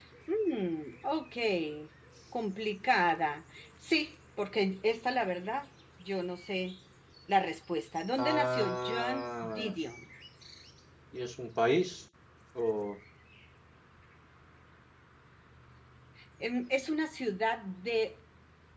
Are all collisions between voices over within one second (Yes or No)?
No